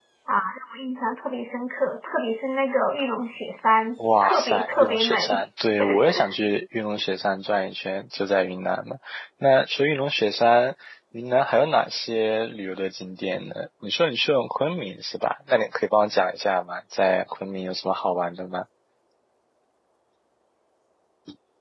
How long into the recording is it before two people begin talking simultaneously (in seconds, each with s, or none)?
4.2 s